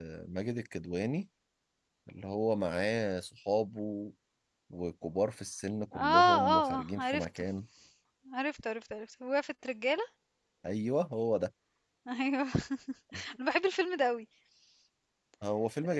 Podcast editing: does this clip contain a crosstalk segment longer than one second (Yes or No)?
Yes